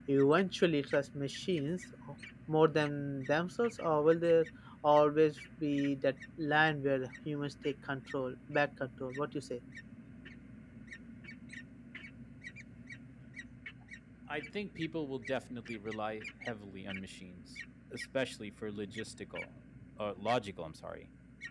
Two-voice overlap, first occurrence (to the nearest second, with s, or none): none